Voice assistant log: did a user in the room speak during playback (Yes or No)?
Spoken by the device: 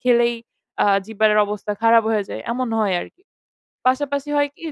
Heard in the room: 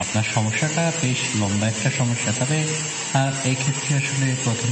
Yes